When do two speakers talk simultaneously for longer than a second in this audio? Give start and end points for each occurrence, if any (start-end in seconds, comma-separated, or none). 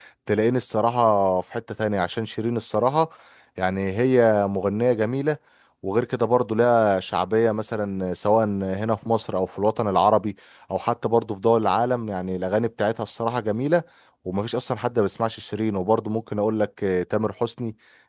none